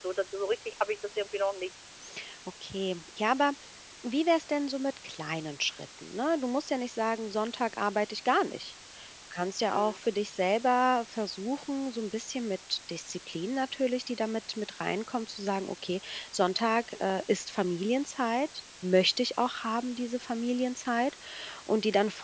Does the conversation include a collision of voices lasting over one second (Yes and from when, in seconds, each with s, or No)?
No